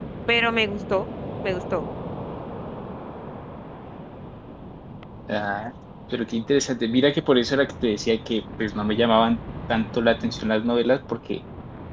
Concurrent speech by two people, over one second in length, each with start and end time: none

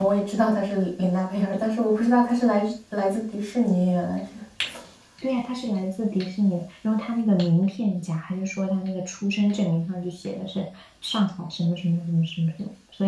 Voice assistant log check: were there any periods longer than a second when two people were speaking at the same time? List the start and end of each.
none

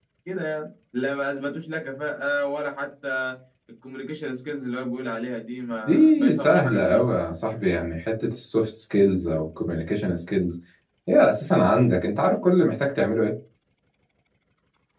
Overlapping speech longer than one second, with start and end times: 5.9-7.1

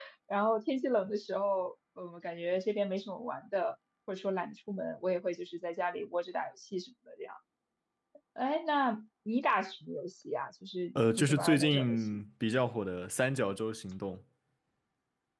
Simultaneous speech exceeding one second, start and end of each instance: 11.0-12.2

